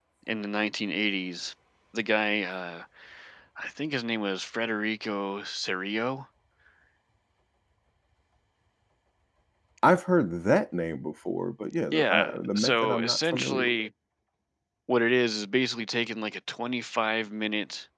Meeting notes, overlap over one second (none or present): present